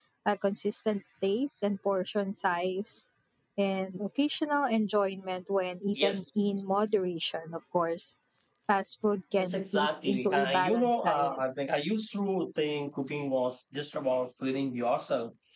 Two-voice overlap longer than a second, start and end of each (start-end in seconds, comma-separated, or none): 9.3-11.4